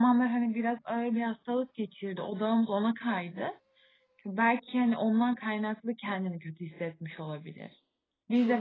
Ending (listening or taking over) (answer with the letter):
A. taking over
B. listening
A